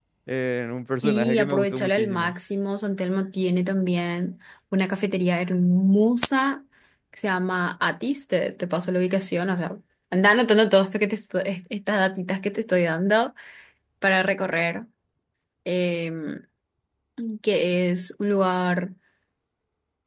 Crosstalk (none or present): present